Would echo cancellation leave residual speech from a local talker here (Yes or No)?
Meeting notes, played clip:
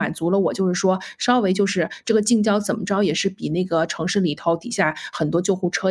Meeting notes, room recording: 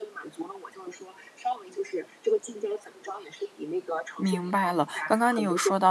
Yes